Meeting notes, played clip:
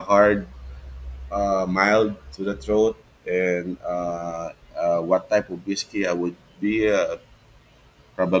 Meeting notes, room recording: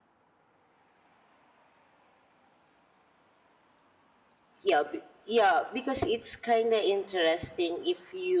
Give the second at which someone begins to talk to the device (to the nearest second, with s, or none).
5 s